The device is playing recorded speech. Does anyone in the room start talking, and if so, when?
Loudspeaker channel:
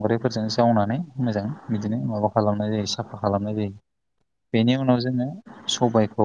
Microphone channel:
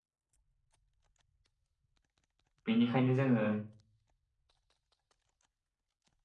2.7 s

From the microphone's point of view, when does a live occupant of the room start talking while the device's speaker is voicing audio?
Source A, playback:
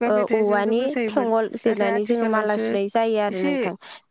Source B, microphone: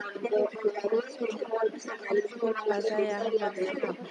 2.7 s

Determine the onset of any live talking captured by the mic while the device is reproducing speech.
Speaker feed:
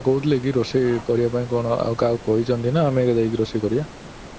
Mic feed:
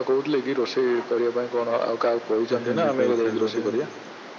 2.3 s

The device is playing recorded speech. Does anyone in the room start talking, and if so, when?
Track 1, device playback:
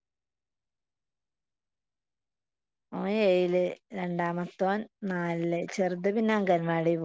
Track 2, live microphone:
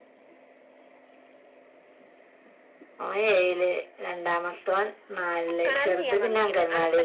5.5 s

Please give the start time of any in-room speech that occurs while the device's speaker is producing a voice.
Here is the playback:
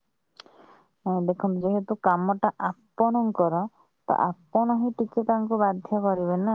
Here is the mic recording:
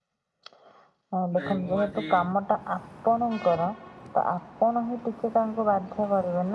1.4 s

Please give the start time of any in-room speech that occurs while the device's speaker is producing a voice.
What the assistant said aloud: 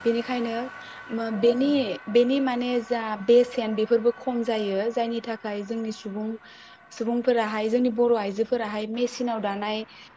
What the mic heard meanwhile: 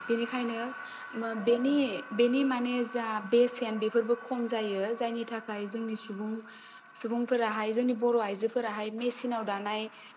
none

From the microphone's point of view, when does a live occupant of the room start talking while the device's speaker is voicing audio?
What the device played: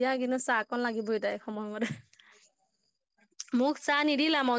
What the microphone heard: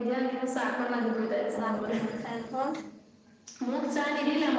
1.5 s

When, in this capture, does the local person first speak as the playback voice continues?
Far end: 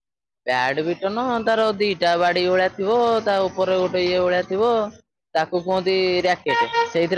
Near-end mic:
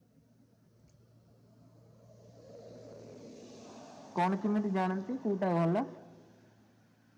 4.2 s

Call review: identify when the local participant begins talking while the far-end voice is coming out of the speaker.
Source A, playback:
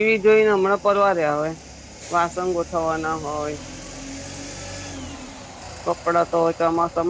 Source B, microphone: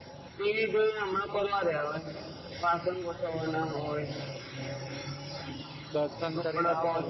5.9 s

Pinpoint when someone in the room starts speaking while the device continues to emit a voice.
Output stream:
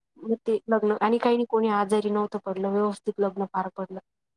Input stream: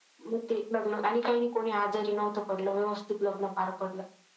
none

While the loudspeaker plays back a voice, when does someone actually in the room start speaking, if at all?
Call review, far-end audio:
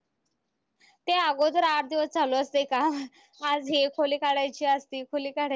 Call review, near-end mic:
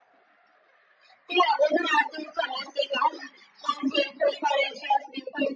none

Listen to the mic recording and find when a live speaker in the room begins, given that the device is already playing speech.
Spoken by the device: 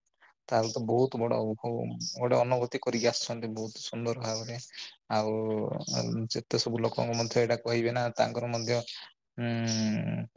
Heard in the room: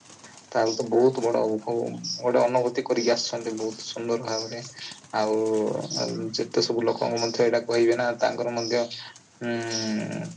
none

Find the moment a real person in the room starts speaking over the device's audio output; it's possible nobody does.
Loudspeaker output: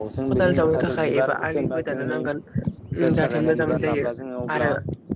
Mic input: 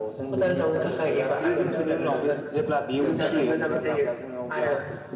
1.4 s

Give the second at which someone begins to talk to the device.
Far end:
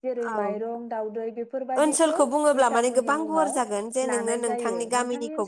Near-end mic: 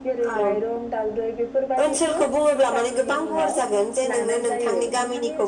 none

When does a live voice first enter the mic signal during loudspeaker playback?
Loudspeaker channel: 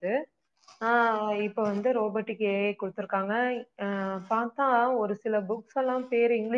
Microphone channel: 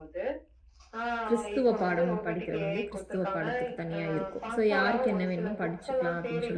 1.3 s

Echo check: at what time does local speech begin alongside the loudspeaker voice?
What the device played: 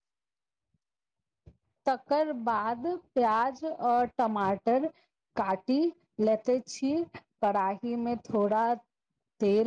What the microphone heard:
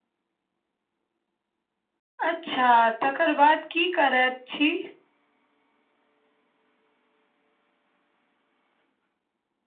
2.3 s

